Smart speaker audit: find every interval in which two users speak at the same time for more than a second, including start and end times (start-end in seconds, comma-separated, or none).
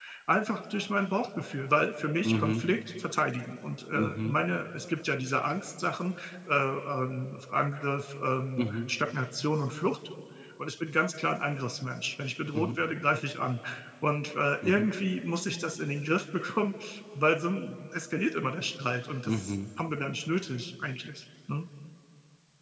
none